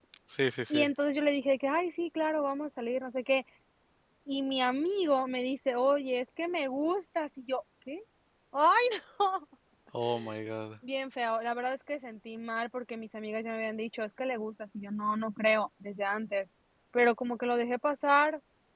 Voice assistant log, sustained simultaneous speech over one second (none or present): none